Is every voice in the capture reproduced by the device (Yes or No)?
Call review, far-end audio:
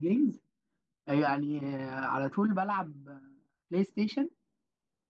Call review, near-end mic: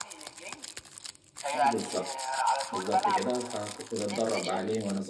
No